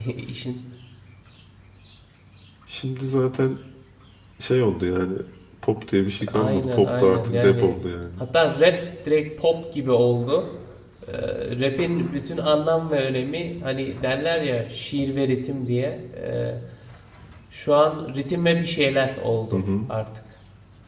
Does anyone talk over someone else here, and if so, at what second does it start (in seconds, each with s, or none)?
6.3 s